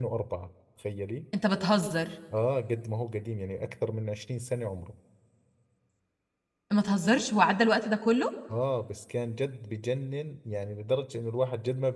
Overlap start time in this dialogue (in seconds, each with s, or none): none